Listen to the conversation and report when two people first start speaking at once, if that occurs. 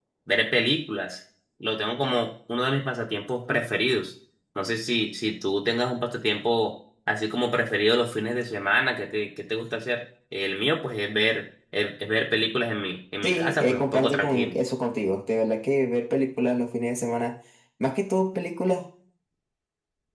13.2 s

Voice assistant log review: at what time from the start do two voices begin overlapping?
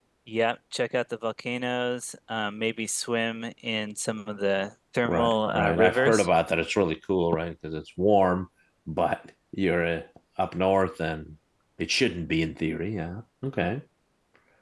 5.0 s

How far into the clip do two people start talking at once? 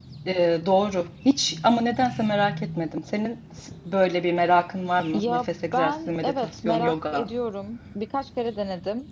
5.1 s

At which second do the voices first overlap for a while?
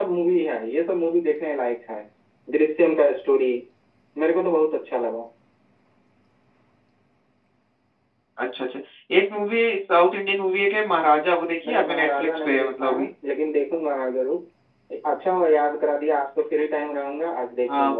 11.6 s

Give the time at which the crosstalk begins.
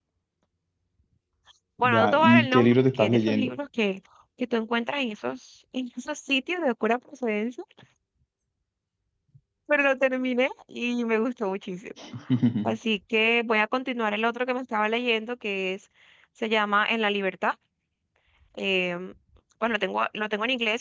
1.8 s

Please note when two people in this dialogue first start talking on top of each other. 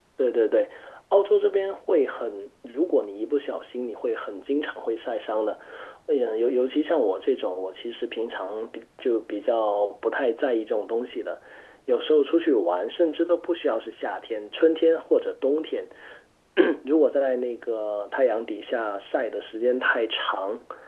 none

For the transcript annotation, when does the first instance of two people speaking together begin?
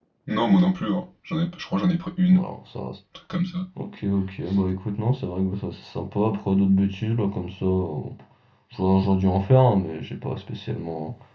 none

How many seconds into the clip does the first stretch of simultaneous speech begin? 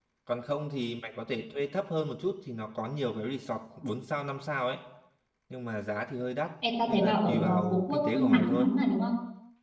6.9 s

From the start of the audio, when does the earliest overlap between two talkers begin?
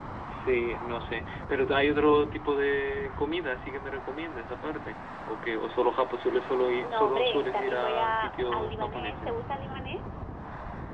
6.8 s

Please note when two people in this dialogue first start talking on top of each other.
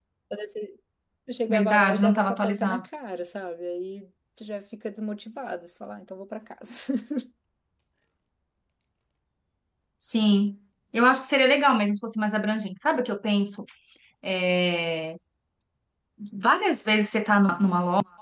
1.5 s

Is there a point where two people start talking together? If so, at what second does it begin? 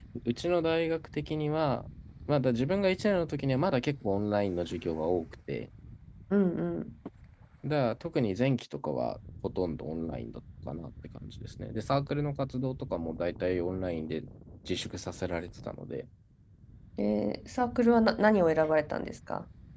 none

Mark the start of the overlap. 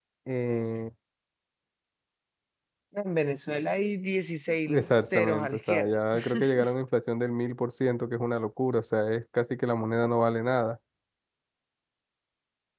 4.7 s

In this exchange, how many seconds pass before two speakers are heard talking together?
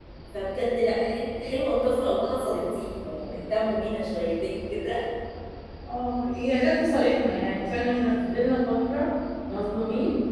none

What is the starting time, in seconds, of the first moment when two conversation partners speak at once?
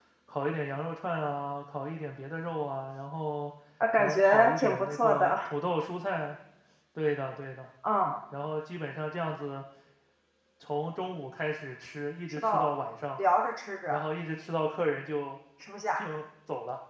3.9 s

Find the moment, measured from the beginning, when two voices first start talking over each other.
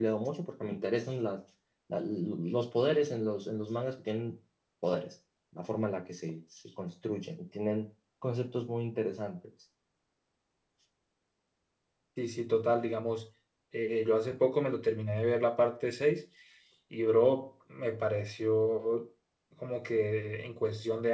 none

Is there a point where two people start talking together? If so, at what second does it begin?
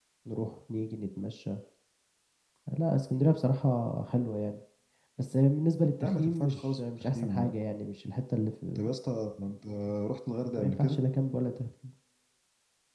6.0 s

